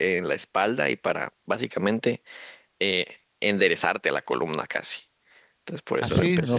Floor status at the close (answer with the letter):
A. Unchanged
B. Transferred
B